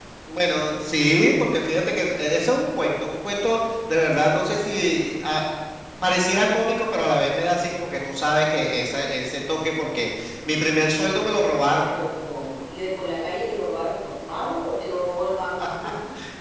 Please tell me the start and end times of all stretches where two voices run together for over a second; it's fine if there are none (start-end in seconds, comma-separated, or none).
none